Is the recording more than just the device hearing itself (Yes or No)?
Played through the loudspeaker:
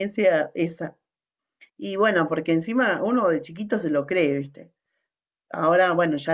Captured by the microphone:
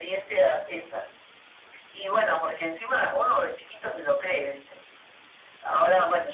No